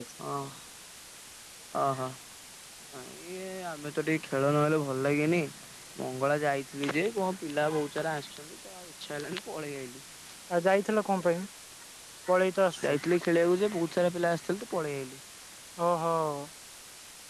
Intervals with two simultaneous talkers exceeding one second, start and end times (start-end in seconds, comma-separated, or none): none